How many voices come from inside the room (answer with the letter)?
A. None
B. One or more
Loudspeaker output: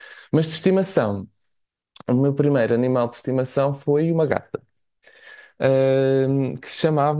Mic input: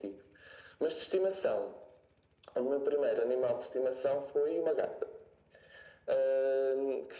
A